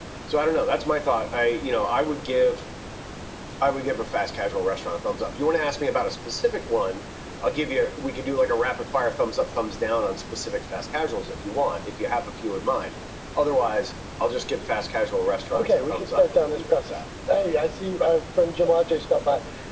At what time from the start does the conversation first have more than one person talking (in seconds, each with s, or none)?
15.5 s